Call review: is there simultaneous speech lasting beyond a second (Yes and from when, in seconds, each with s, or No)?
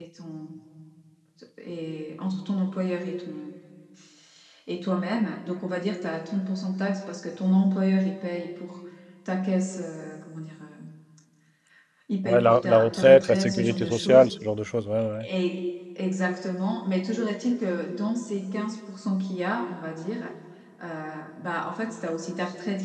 Yes, from 12.2 s